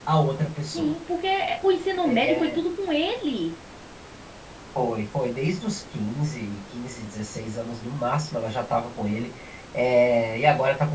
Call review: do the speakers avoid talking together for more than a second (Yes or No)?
Yes